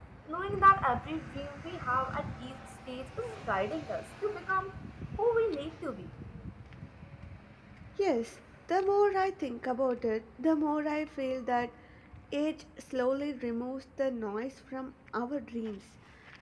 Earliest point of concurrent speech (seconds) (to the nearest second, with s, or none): none